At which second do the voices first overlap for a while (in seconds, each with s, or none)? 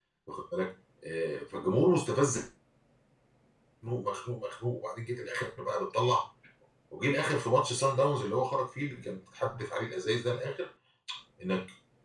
none